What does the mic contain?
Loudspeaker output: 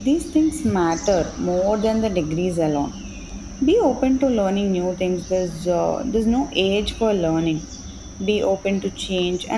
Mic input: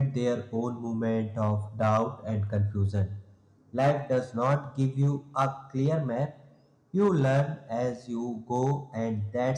user only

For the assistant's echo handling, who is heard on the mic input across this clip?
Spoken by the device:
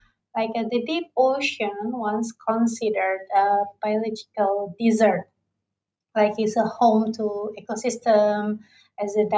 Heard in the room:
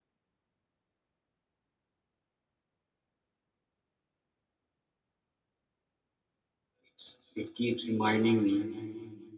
user only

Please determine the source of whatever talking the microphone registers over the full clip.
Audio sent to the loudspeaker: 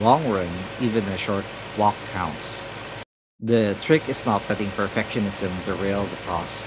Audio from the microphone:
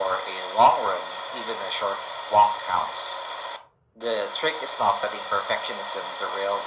echo only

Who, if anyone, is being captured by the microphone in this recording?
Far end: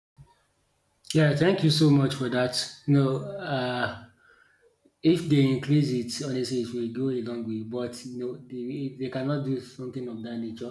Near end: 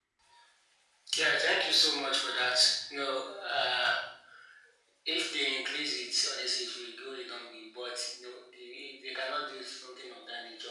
echo only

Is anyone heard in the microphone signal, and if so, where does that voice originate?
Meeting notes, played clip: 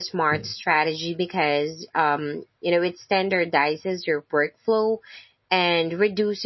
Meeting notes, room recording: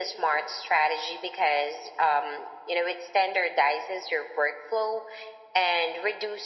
echo only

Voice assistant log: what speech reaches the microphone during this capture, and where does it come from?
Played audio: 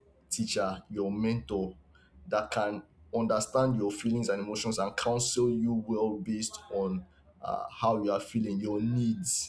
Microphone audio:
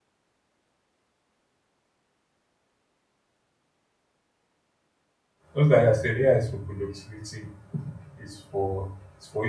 user only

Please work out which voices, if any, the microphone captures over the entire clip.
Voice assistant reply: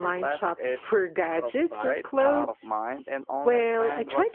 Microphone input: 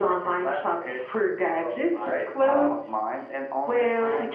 echo only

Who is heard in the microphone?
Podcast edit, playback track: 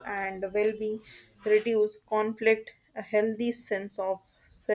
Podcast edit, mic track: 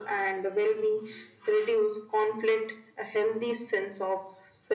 echo only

